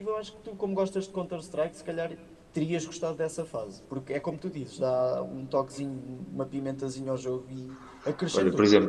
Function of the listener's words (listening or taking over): taking over